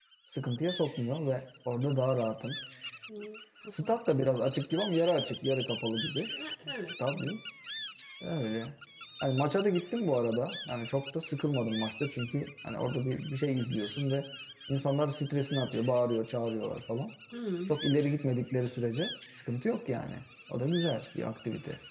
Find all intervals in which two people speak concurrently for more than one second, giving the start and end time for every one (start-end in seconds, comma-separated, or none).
none